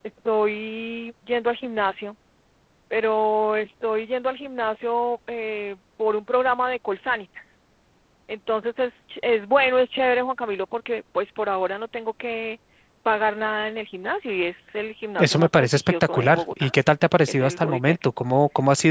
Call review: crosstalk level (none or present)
present